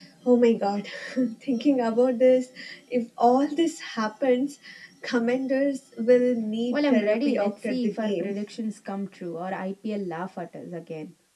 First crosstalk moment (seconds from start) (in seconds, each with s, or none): 6.7 s